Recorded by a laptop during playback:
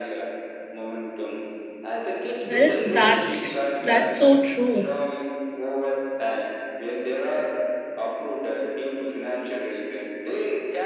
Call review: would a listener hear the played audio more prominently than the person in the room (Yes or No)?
No